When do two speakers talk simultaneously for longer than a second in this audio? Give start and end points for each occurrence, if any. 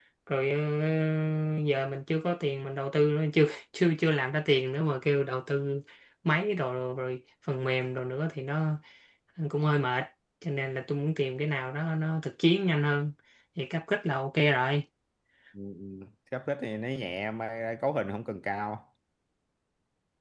none

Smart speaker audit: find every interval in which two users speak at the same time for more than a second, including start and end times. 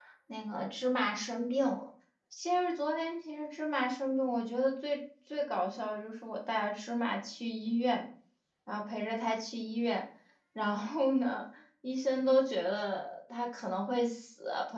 none

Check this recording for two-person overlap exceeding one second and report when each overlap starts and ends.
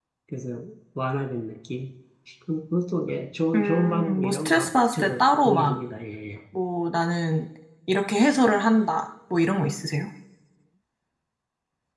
3.5-5.8

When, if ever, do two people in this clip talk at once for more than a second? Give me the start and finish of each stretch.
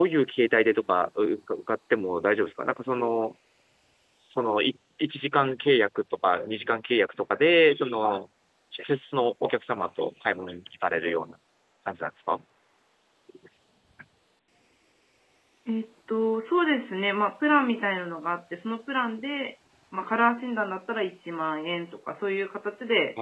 none

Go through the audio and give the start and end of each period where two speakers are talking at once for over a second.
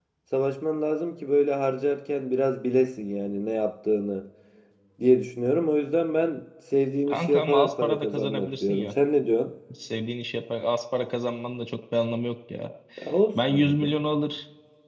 7.1-8.9

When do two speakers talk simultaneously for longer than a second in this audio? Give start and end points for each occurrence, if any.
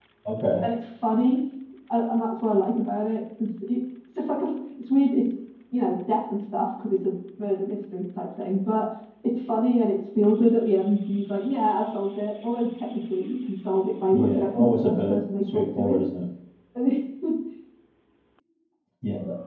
14.1-16.0

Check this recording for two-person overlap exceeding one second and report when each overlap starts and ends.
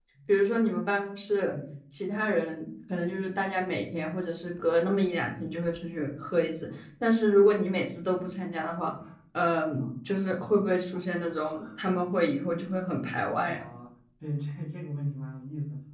none

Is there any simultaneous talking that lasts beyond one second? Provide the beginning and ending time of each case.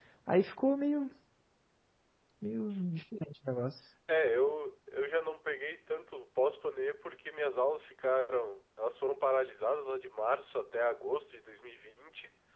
none

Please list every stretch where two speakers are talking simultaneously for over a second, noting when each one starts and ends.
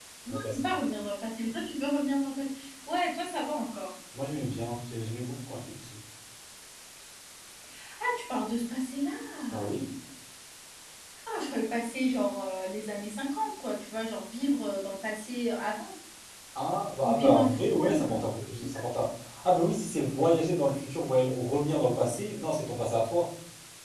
17.0-18.2

